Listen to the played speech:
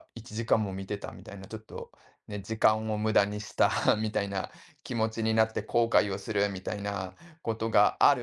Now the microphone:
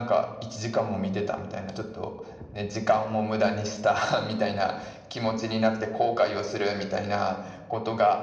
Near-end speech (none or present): none